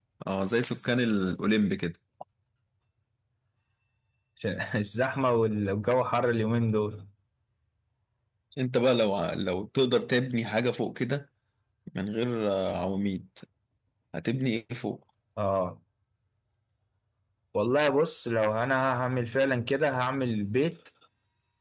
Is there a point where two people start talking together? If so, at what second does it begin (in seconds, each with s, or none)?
none